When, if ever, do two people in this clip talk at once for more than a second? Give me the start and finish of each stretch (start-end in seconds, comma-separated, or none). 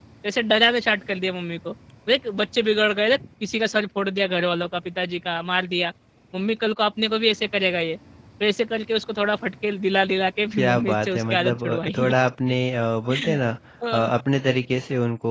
10.6-12.1